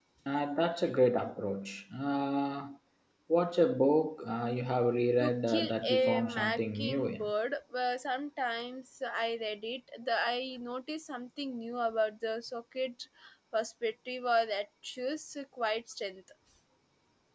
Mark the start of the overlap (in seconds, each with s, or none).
5.2 s